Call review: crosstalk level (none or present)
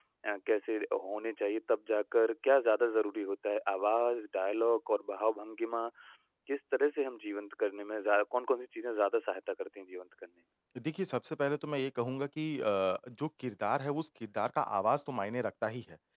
none